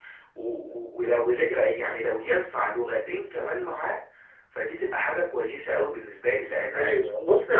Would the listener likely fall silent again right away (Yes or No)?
No